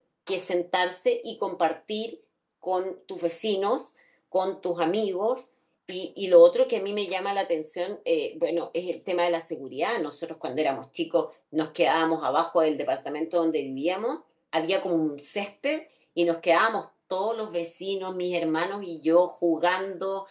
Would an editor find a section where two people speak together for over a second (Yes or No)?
No